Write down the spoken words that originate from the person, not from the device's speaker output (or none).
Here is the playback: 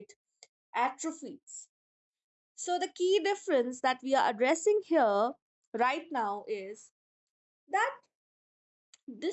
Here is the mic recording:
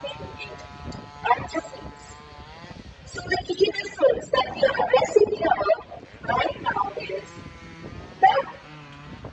none